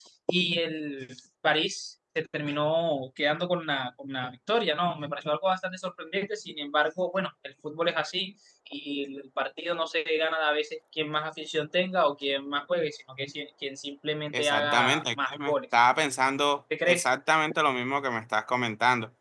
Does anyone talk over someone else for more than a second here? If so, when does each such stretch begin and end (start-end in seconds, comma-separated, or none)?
14.3-15.6